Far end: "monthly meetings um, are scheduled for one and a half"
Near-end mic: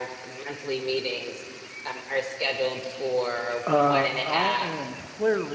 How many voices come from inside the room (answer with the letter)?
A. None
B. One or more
B